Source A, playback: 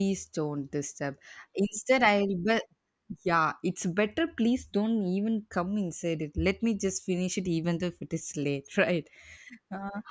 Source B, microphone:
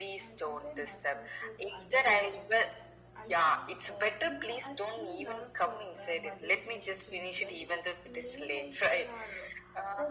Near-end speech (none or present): present